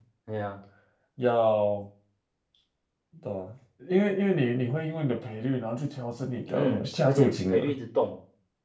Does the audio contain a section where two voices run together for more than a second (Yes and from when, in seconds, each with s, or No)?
Yes, from 6.5 s